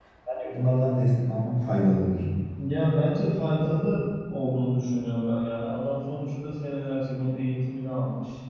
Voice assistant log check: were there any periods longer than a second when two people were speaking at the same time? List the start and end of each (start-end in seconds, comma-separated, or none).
none